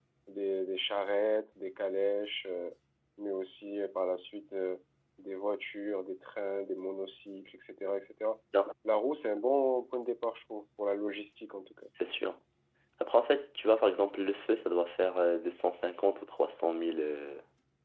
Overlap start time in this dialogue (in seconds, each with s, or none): none